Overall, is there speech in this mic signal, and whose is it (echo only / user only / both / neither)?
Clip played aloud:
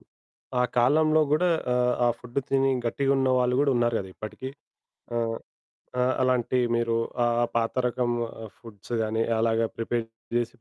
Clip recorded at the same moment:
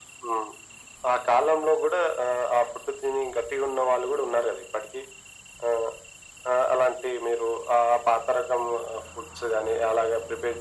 echo only